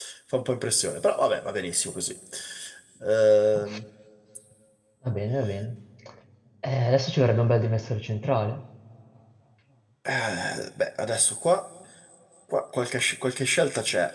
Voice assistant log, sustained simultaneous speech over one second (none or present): none